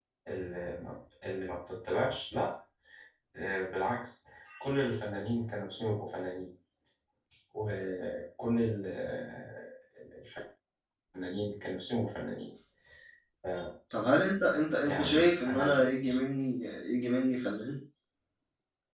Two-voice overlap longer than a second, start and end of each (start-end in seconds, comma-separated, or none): 14.8-16.2